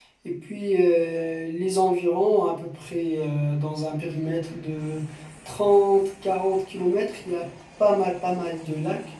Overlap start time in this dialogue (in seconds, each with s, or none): none